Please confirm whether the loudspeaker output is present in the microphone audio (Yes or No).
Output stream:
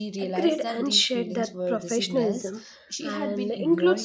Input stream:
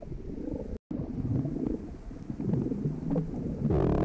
No